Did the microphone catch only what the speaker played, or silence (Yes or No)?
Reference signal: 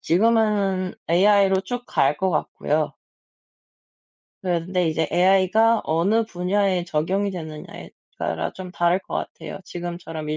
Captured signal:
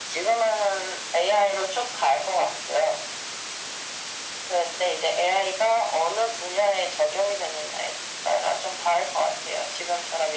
Yes